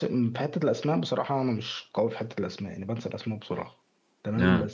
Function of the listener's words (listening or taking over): listening